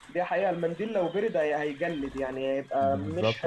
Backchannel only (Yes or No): No